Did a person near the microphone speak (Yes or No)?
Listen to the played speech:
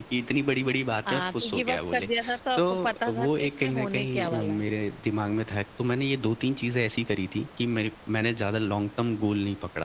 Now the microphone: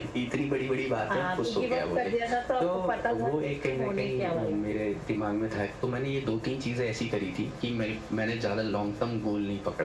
No